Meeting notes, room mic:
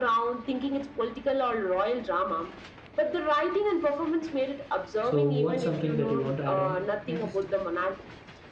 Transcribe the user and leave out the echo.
So, what's something that you want to add on next?

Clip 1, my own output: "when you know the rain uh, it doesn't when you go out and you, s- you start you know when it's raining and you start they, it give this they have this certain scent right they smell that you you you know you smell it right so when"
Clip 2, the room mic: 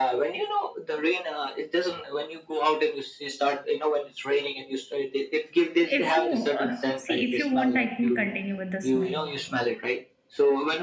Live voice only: If you uh, see, if you want, I can continue with the smell also.

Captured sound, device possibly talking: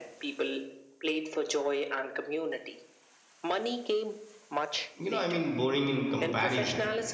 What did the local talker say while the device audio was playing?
you know, I mean boring in comparison.

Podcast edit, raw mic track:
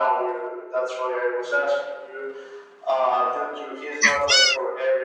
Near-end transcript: sounds.

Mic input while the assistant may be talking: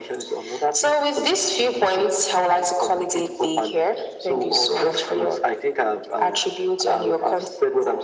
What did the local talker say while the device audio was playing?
none

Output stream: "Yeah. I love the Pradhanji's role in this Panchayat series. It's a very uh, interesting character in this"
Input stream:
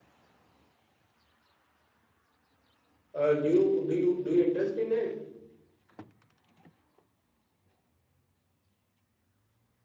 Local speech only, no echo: Uh, do you do you do you interest in it?

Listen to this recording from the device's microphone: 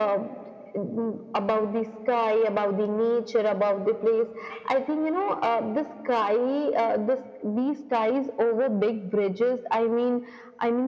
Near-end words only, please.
none

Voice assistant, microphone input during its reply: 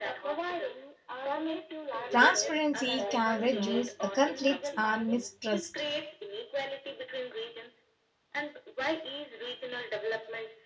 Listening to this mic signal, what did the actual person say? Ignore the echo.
Transparency can reduce uh, conflicts and mistrust.

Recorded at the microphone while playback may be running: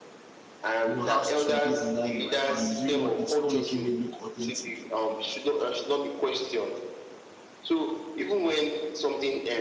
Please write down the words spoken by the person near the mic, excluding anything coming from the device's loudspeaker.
you know, has to be in line with my values. If not, it's not making me look authentic.

